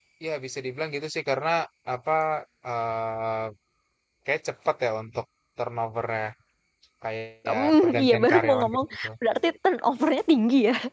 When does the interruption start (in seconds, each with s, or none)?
7.5 s